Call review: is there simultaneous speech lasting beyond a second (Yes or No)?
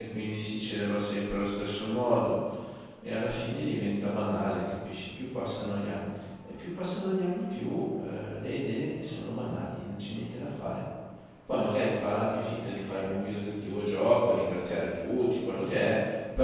No